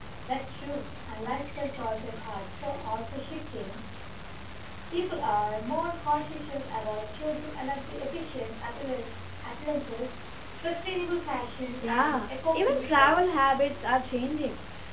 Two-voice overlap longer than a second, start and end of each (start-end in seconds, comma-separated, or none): 11.8-13.4